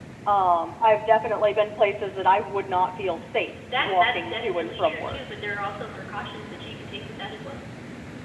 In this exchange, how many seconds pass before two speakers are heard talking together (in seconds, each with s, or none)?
3.6 s